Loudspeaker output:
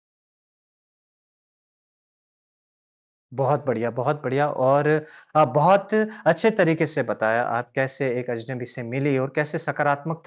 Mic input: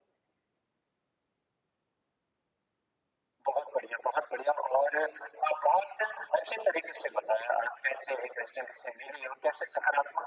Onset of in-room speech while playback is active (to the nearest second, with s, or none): none